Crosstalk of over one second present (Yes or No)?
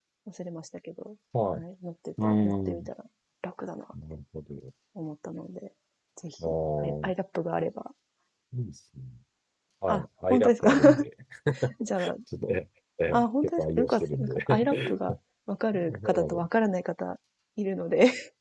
Yes